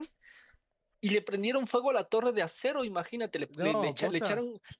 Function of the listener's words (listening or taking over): listening